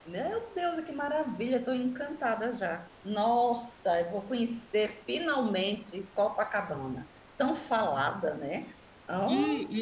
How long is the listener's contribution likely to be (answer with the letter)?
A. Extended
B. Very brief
A